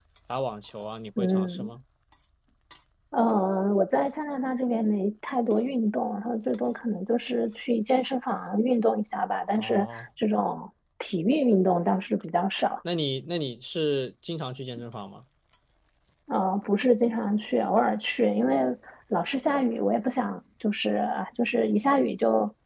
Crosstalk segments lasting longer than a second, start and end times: none

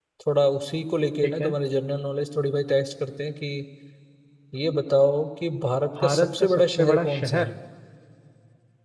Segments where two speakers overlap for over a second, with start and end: 6.0-7.5

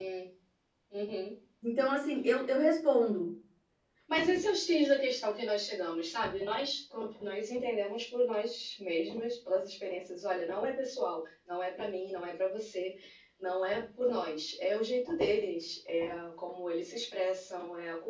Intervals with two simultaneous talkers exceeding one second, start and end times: none

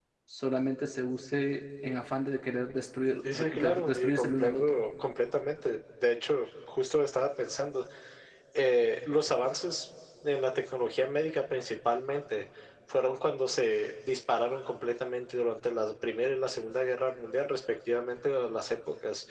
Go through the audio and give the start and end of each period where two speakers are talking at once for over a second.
3.3-4.8

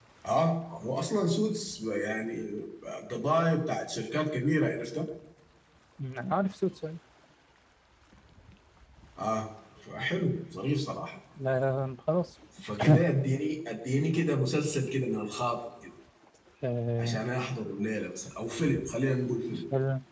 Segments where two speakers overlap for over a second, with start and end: none

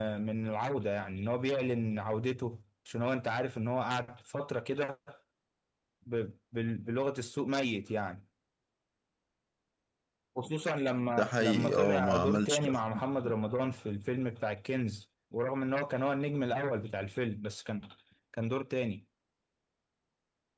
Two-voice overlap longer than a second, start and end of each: 11.2-12.7

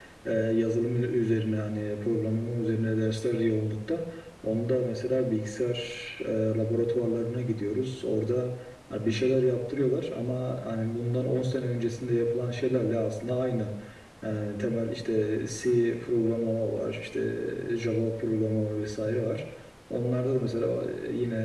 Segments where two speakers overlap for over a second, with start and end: none

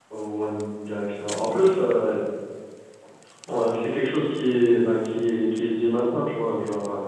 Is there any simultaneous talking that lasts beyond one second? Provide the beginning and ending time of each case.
none

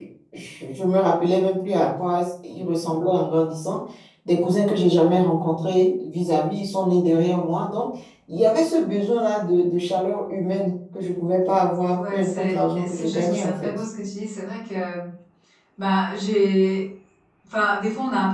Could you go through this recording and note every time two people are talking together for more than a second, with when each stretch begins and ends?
12.0-13.7

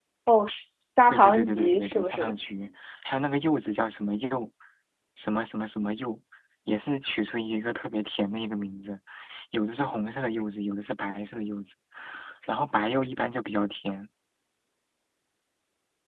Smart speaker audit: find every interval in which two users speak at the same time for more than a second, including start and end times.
1.1-2.3

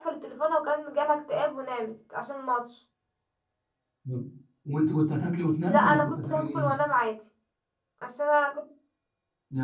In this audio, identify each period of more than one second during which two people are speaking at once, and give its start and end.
5.6-6.8

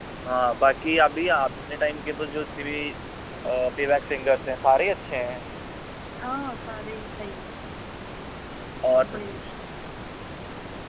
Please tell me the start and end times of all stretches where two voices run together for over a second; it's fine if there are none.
none

